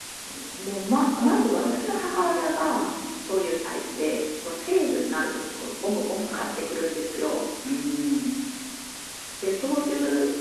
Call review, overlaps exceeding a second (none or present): present